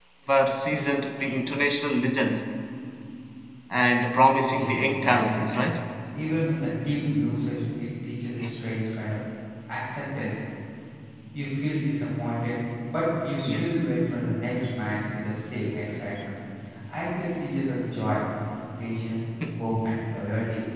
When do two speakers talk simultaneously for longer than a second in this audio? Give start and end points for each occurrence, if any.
4.5-5.7

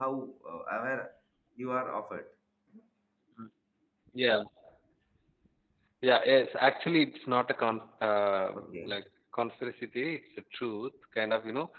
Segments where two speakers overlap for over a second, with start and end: none

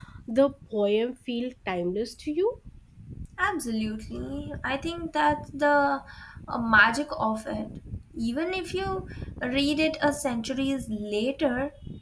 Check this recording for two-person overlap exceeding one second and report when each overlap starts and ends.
none

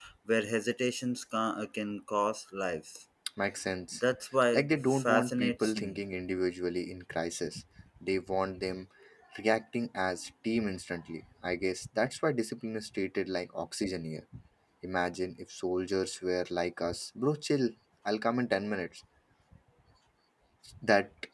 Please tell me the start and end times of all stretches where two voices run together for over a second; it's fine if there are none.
4.5-6.0

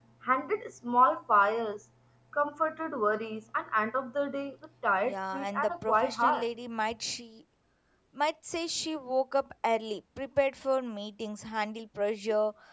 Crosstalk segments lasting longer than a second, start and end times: 5.0-6.5

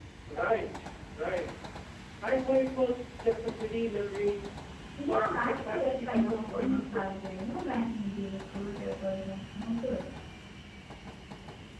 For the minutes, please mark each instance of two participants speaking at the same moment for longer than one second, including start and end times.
5.0-7.1

